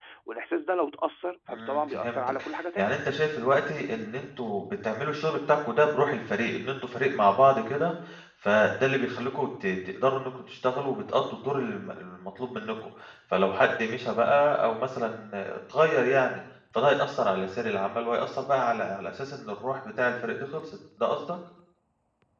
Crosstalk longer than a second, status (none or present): present